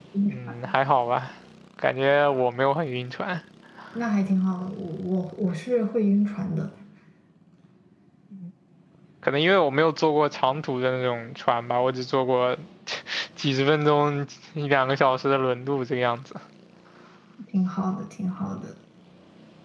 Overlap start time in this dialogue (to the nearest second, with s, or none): none